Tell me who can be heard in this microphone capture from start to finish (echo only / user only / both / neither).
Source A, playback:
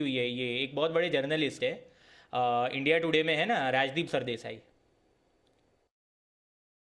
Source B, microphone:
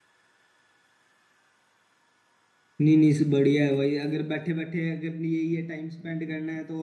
user only